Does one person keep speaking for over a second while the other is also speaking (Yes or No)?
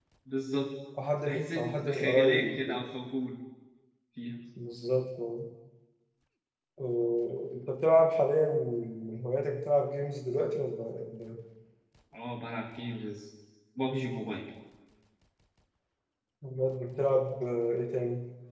Yes